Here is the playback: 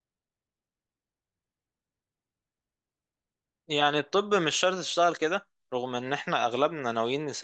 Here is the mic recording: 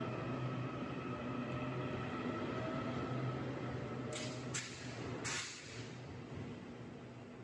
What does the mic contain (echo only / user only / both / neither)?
neither